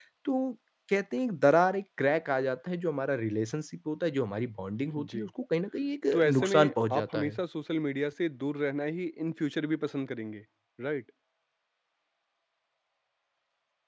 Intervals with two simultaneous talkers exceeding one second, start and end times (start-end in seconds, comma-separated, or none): 6.1-7.4